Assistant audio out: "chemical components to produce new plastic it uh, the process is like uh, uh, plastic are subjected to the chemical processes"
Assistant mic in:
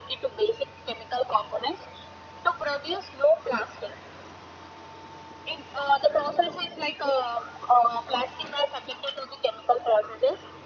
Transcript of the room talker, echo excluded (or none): none